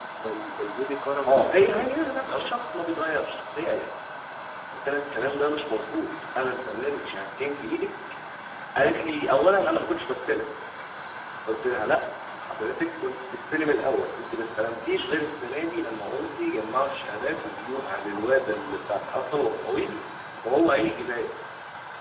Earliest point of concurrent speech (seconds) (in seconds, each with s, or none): 1.3 s